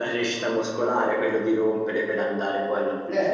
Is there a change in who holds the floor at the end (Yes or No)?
Yes